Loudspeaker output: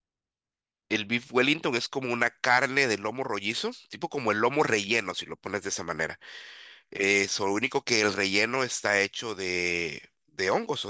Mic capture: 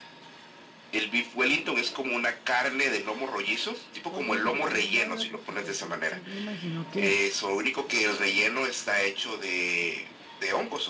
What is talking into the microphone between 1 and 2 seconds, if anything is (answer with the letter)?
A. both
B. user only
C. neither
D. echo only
D